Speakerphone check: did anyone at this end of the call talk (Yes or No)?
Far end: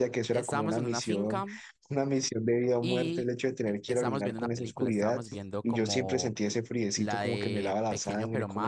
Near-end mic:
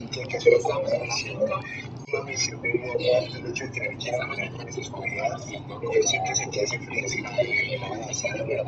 No